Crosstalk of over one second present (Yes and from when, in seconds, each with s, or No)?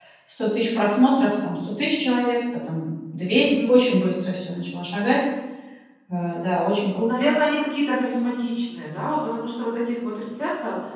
No